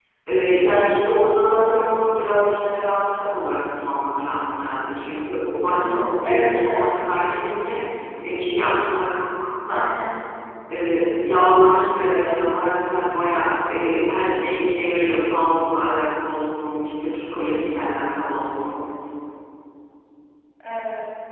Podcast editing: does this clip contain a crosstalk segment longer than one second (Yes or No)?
Yes